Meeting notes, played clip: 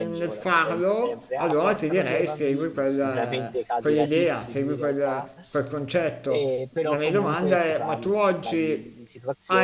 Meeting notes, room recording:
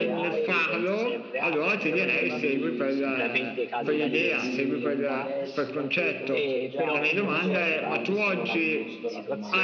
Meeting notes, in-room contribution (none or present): present